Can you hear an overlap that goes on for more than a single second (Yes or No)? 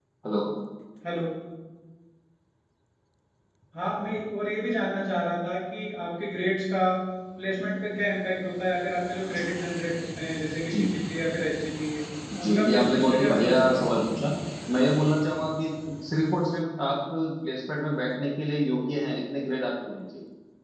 Yes